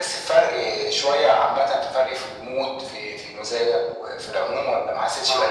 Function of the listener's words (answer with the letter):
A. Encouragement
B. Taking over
B